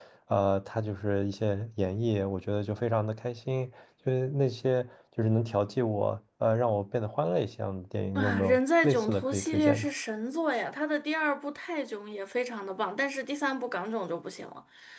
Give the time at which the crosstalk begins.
8.2 s

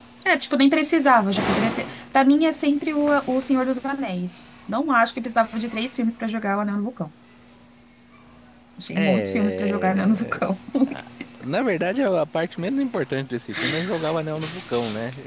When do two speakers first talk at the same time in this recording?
8.9 s

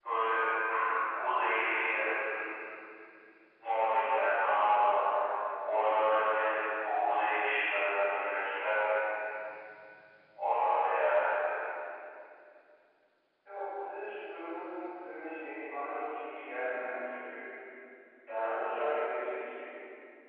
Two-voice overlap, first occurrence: none

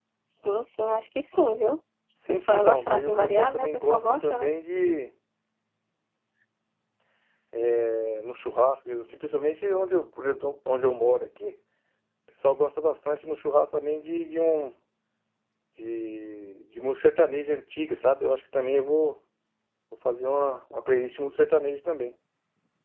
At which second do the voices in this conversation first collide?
2.3 s

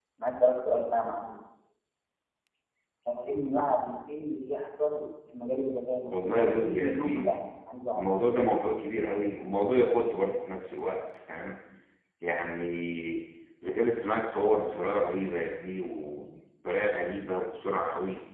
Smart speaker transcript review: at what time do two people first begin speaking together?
6.1 s

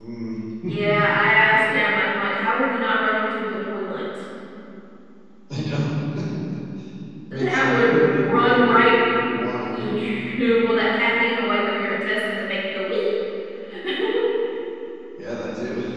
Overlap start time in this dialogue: 7.3 s

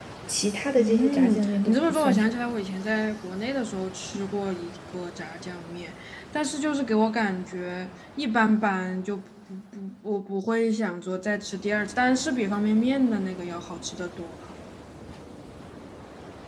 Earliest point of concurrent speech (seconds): 0.8 s

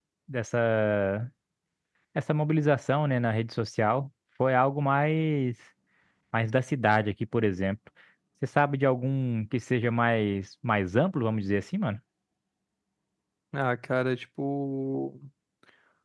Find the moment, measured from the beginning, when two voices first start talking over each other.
none

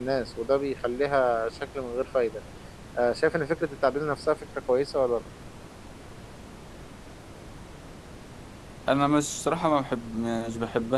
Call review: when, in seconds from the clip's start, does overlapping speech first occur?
none

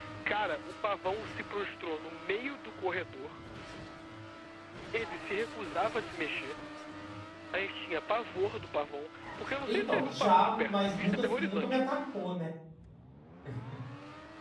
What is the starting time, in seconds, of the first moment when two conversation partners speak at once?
9.7 s

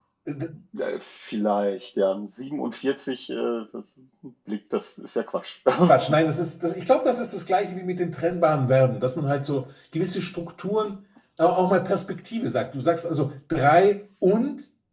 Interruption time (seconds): none

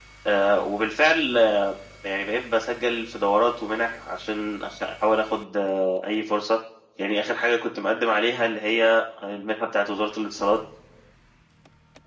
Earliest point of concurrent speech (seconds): none

